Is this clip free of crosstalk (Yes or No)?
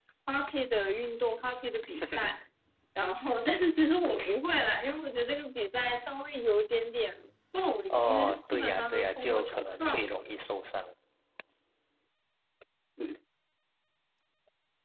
No